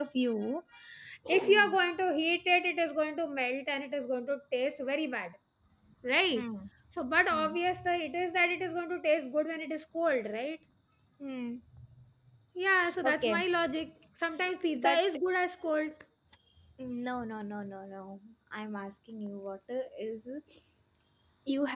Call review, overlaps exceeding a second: none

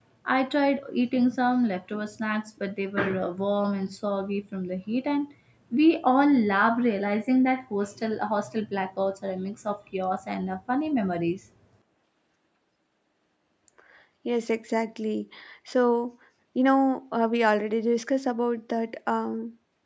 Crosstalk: none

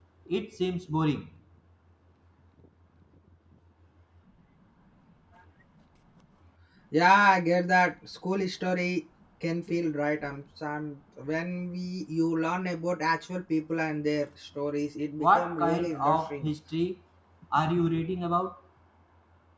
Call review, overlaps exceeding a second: present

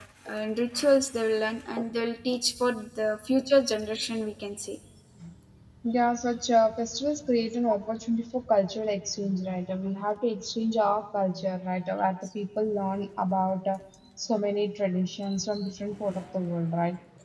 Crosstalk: none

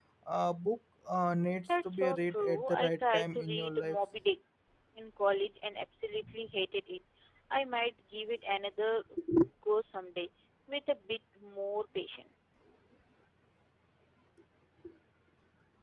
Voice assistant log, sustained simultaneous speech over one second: present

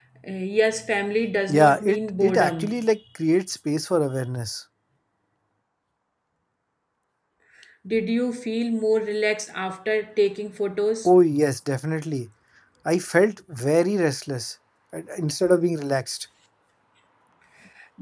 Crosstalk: present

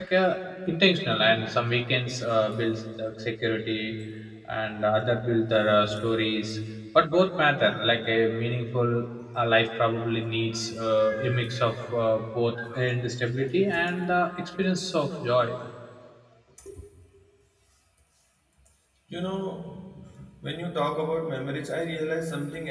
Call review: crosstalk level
none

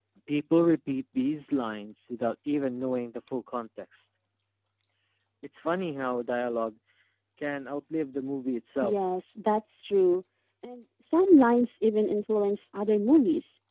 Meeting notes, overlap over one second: none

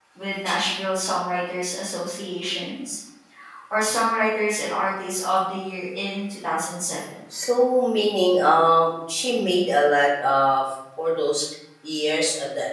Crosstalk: none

